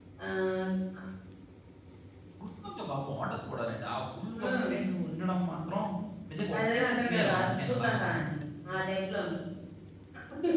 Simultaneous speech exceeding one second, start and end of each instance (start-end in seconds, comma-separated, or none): 6.6-8.0